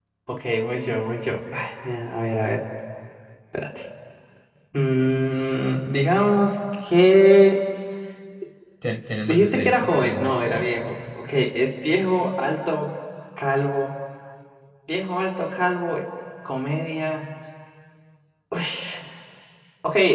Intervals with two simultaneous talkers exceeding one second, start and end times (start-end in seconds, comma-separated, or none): 9.3-10.8